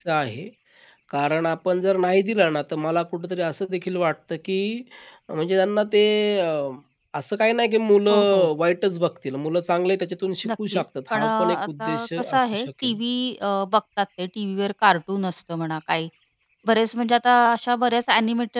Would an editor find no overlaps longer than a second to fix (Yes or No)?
No